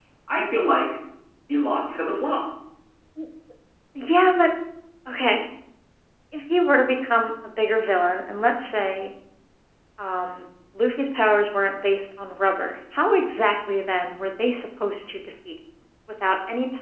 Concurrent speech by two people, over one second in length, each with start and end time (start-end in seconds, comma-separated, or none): none